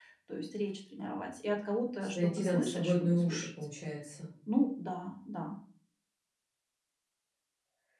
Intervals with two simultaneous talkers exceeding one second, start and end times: 2.1-3.5

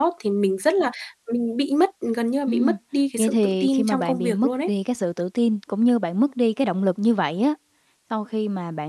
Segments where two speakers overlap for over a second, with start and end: 3.2-4.7

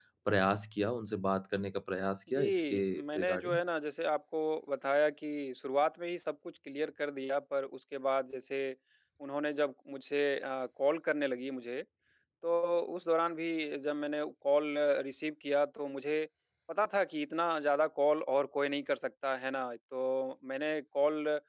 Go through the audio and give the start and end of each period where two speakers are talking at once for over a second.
2.3-3.6

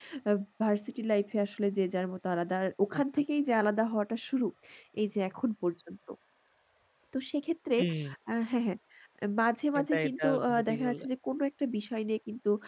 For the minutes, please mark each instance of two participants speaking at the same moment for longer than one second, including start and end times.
9.8-11.1

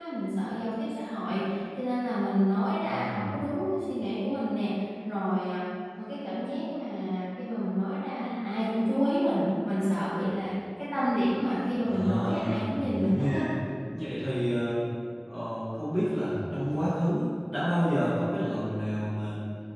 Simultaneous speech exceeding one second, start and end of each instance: 11.8-13.4

